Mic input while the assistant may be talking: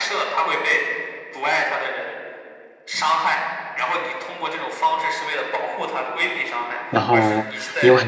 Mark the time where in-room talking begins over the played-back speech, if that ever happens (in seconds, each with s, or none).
6.9 s